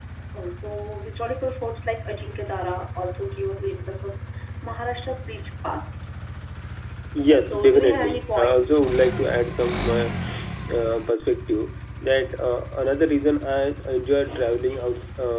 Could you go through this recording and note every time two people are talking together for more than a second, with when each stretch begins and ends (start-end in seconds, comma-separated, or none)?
7.3-8.8